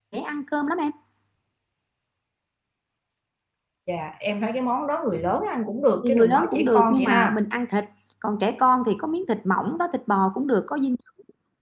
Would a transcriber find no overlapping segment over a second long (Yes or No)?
No